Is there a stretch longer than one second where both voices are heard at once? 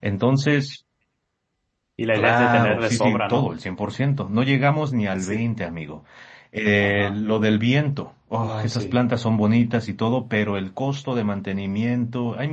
Yes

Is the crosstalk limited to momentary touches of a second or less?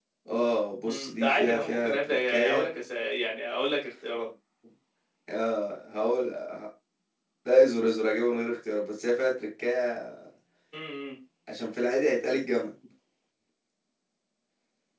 No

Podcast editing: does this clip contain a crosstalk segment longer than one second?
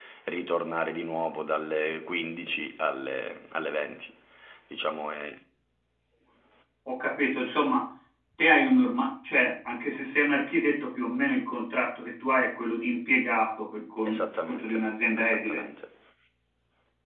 Yes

